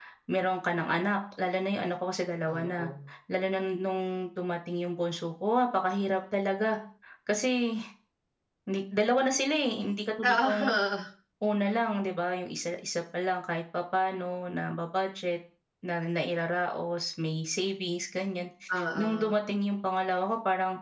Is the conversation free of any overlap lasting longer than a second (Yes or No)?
Yes